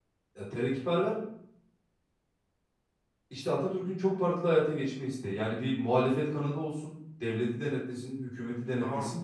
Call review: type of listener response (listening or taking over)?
taking over